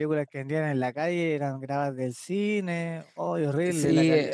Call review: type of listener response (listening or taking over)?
taking over